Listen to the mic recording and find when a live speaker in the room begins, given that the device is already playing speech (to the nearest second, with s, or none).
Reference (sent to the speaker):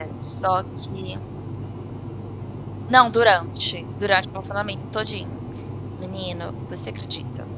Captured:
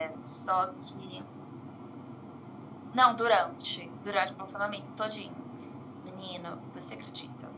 none